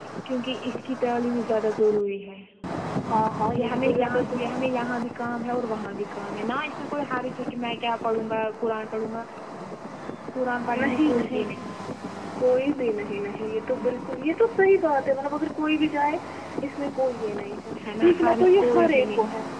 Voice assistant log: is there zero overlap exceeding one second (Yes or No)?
No